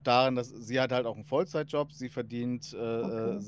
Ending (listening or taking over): listening